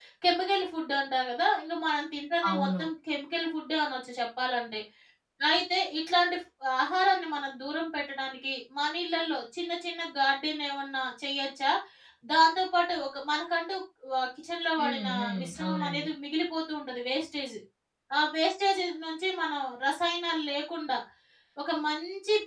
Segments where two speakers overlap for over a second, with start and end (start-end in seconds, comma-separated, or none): 14.8-16.1